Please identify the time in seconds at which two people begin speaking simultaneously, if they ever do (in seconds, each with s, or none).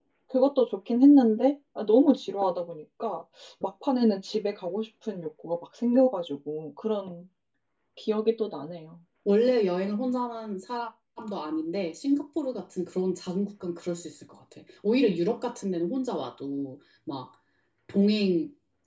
none